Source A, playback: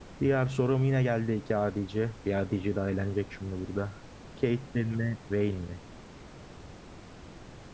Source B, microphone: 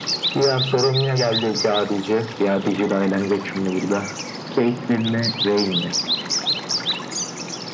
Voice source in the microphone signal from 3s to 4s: echo only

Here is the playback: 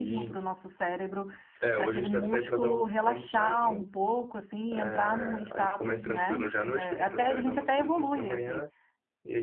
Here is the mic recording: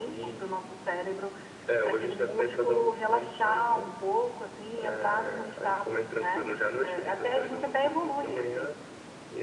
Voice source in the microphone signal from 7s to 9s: echo only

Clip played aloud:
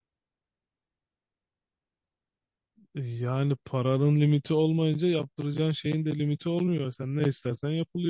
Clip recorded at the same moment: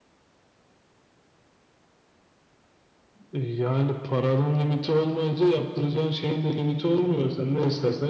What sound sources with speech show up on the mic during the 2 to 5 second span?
echo only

